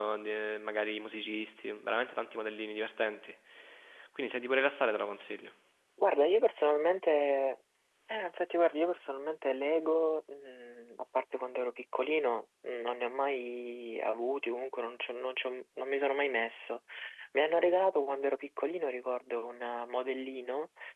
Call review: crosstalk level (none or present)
none